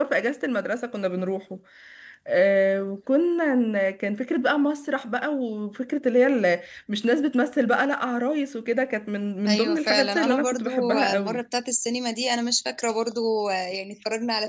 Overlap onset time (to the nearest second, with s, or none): 9 s